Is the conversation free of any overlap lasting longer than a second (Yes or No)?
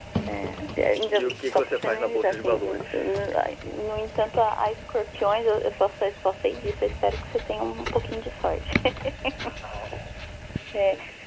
No